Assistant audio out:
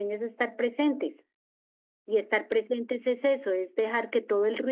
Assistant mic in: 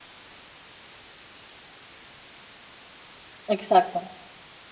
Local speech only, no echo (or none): Exacto.